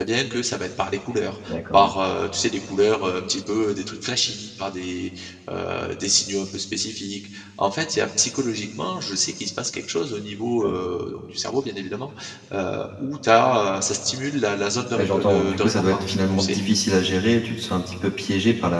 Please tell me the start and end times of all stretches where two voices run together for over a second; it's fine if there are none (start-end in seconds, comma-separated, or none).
14.9-16.6